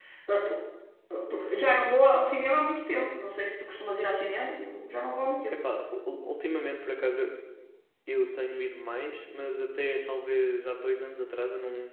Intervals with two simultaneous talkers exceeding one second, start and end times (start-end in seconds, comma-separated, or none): none